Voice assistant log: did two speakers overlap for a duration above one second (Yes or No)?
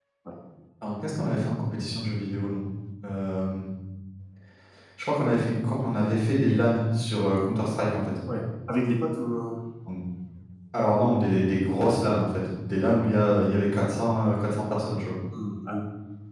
No